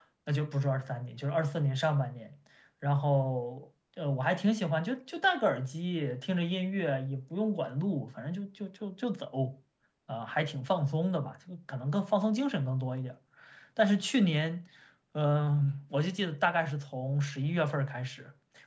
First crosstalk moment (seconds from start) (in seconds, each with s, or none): none